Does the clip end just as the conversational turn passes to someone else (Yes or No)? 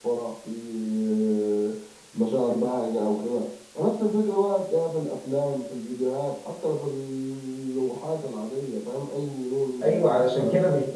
Yes